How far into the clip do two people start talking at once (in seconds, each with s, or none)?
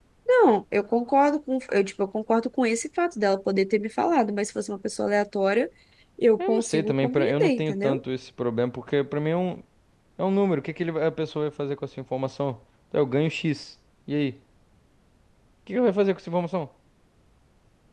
6.4 s